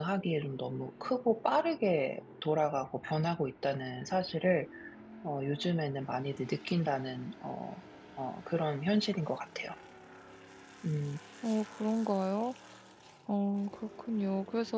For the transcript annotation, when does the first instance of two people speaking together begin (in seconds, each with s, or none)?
none